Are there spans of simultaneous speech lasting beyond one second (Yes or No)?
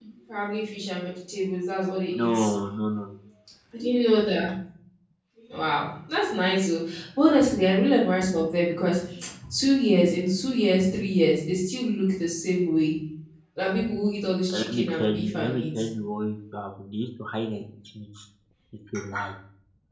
Yes